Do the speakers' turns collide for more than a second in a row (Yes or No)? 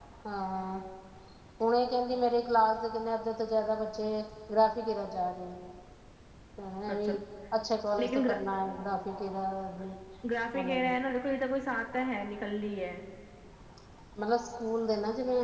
No